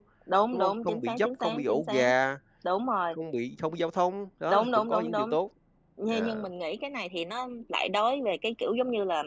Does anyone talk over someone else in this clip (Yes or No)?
Yes